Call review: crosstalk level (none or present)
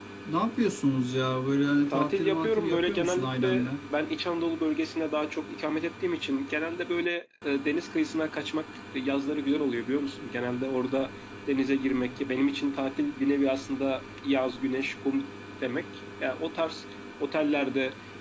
present